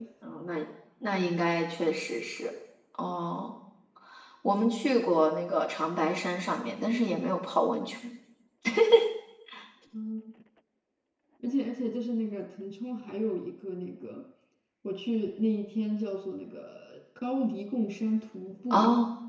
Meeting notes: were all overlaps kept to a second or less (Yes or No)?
Yes